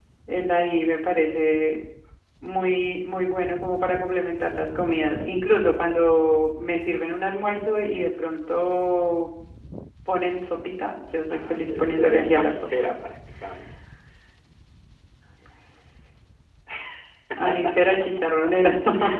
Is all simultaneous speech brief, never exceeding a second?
No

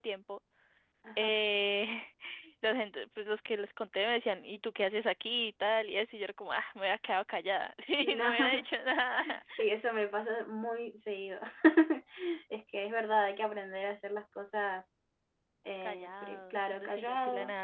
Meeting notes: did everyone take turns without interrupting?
No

